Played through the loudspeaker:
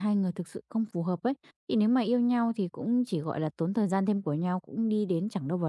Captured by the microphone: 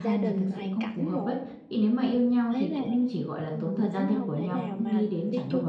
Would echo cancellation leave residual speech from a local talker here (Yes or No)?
Yes